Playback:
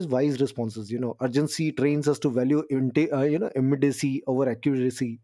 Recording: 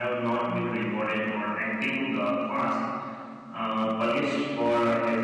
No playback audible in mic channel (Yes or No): Yes